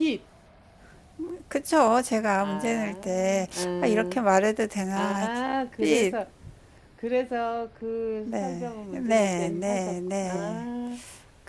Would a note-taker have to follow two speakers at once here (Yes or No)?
Yes